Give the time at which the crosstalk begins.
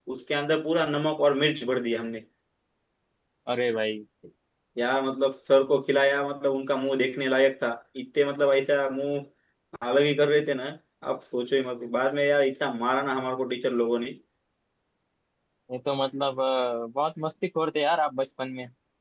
none

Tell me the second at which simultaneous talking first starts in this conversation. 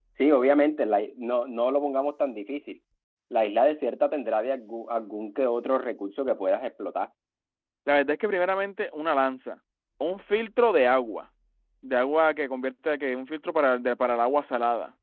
none

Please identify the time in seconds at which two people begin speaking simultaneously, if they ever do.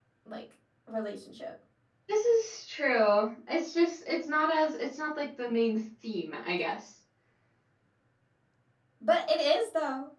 none

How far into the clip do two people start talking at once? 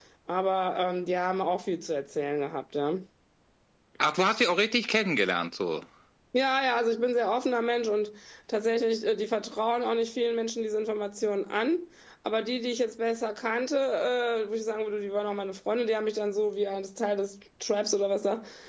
none

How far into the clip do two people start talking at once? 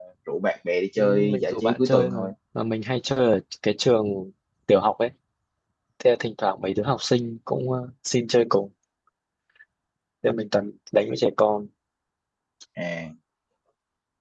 1.0 s

